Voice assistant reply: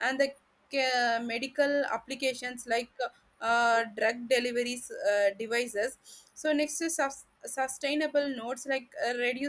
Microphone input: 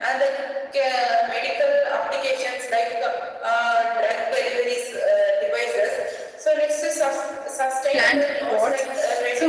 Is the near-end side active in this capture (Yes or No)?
Yes